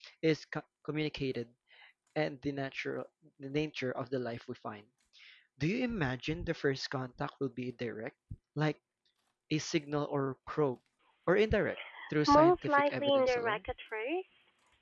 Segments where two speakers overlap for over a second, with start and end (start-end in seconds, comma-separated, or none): 12.3-13.6